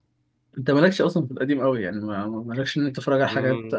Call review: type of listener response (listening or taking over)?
listening